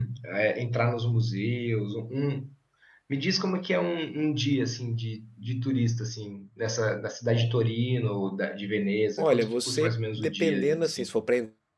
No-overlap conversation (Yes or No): No